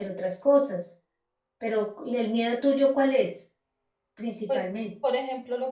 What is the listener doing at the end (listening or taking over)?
taking over